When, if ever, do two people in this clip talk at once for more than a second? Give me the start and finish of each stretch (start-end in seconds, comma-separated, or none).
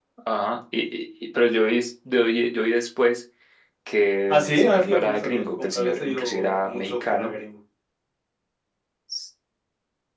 4.3-7.3